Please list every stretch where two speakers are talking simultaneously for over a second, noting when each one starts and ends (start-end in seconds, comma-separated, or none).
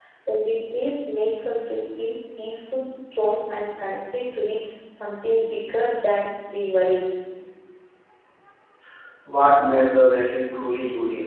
none